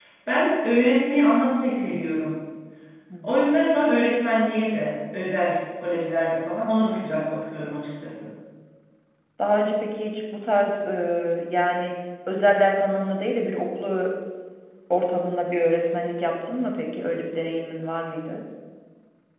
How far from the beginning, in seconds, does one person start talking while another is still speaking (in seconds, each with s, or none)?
none